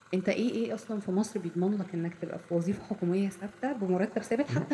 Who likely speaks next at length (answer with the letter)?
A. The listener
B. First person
B